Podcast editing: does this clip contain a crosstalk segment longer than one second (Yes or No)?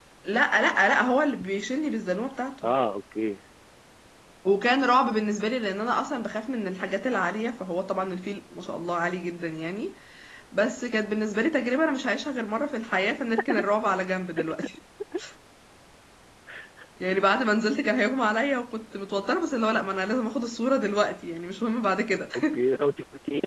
No